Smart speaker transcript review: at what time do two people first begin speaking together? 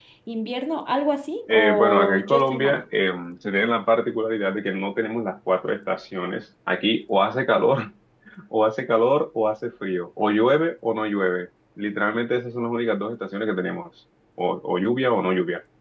1.5 s

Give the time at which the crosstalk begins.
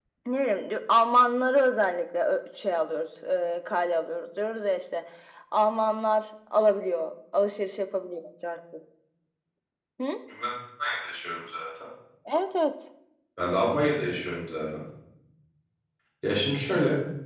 none

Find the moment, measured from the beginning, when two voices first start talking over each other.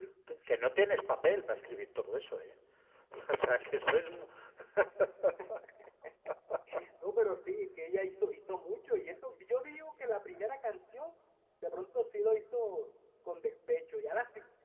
none

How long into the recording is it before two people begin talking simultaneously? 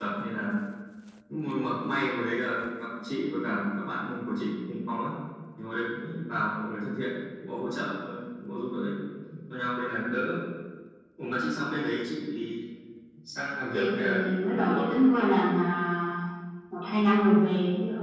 13.7 s

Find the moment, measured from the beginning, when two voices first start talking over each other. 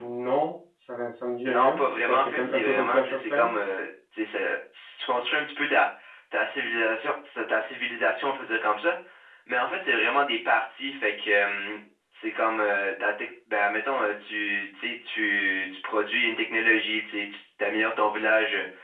1.4 s

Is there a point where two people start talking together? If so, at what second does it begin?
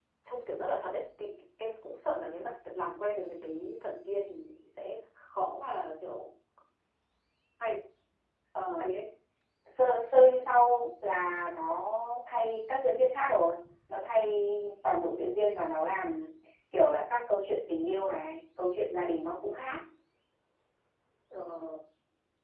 none

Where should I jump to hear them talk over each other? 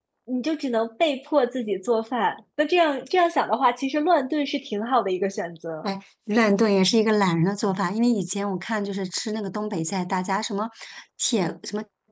none

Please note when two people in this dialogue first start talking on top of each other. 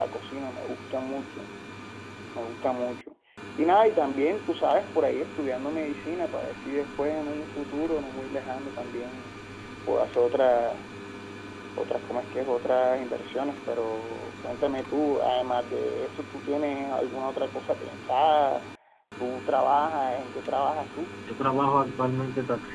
none

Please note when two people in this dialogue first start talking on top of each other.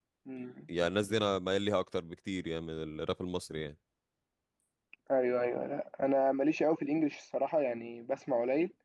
none

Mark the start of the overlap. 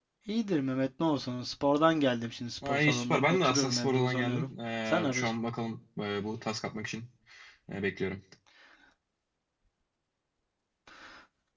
2.6 s

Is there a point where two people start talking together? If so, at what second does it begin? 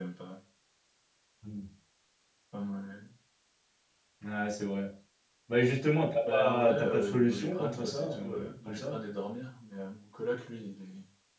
6.2 s

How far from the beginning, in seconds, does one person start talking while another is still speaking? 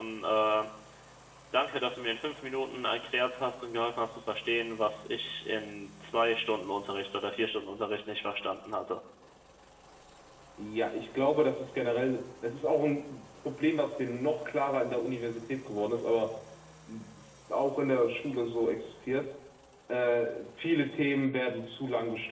none

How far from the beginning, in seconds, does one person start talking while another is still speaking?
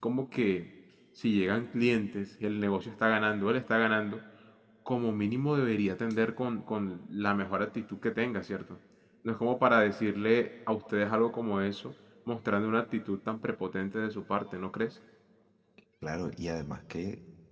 none

